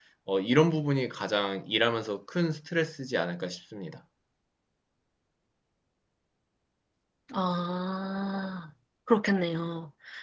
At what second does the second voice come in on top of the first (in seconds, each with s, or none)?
none